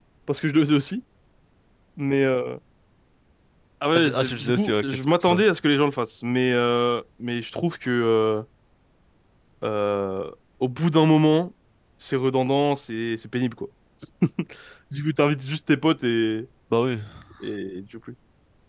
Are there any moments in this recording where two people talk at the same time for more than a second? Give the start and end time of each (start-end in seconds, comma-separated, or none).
4.0-5.4